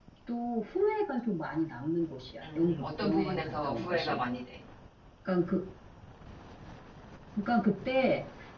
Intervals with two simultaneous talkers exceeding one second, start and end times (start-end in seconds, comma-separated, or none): 2.4-4.2